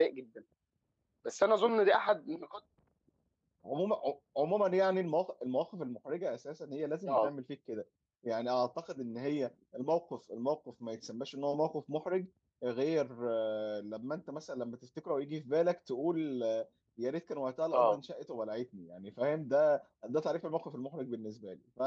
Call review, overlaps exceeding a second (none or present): none